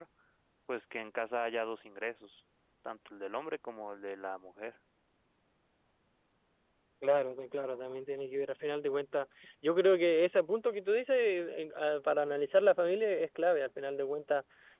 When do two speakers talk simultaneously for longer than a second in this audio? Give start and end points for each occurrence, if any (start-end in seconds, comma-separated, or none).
none